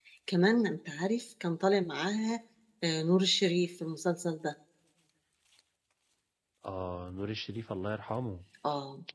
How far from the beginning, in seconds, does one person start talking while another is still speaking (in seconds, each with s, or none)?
none